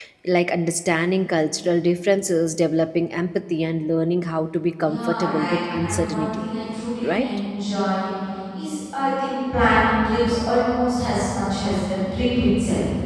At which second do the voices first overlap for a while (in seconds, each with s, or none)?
4.8 s